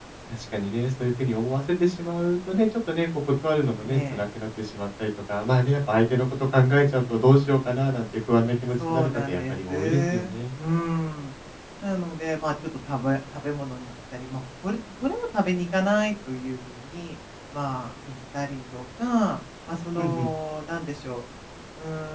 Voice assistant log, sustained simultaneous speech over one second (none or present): present